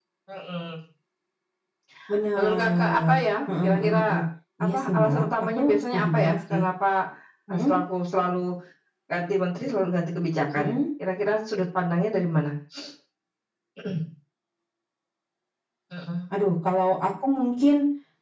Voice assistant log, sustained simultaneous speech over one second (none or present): present